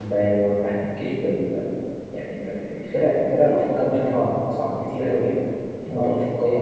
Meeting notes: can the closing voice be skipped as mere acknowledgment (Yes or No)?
Yes